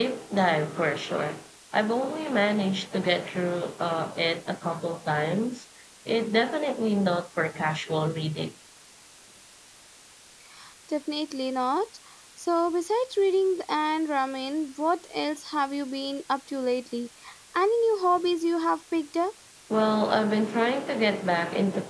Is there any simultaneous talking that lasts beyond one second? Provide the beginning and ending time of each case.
none

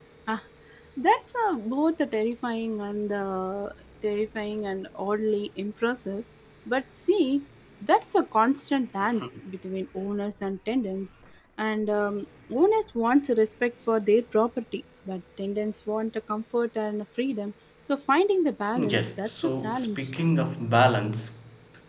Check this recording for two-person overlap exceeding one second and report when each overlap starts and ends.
18.8-20.1

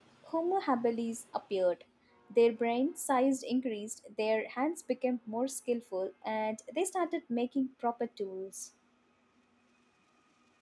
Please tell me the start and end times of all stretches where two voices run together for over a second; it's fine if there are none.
none

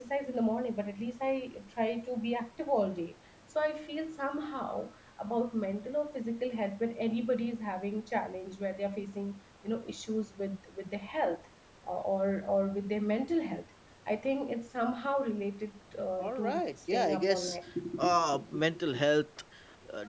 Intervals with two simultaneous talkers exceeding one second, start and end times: 16.2-17.6

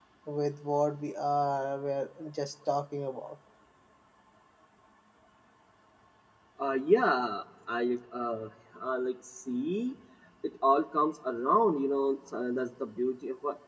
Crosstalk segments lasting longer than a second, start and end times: none

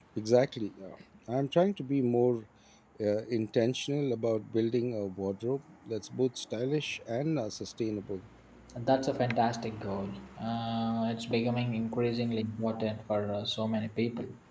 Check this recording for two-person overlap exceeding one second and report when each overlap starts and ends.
none

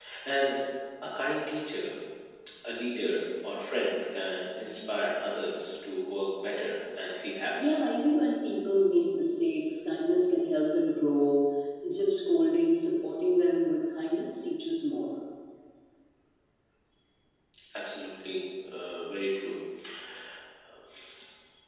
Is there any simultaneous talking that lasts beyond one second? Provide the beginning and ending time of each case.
none

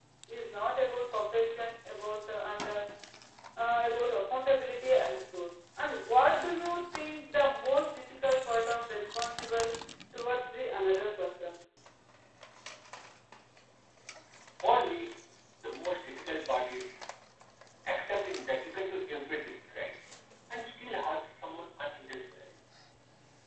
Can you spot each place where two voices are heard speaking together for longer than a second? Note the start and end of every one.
none

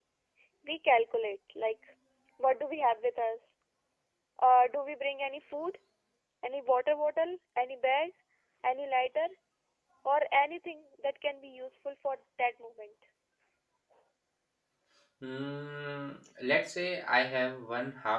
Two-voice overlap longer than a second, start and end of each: none

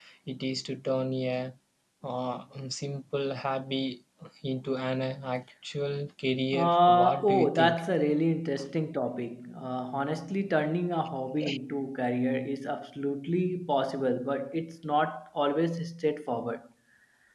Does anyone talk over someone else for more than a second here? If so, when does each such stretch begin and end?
6.5-7.8

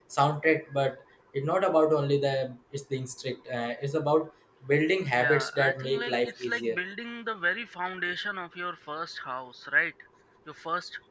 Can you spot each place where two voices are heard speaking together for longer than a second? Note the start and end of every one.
5.2-6.8

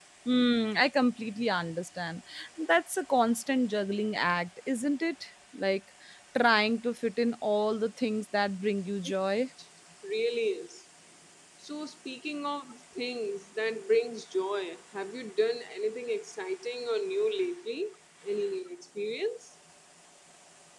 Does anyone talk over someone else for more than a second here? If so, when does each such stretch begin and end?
none

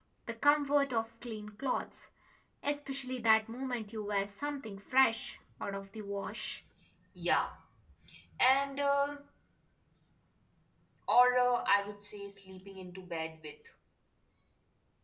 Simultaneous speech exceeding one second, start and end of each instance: none

